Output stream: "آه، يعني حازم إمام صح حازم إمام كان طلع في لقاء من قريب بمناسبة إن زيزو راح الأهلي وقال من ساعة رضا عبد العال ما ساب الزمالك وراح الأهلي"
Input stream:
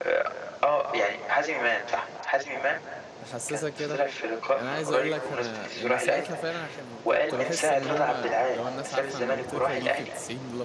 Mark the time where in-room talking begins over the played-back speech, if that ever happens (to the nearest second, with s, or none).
3 s